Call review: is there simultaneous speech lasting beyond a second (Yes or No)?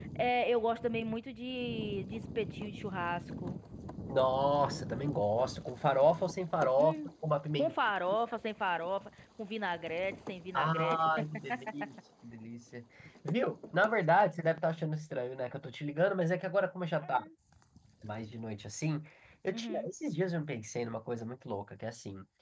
No